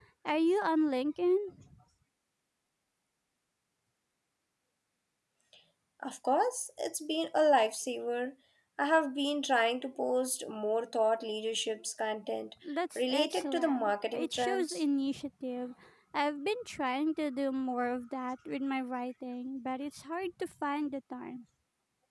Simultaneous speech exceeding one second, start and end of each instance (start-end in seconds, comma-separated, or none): 13.0-14.8